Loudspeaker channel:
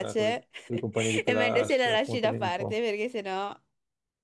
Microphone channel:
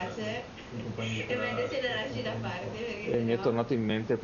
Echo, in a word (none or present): present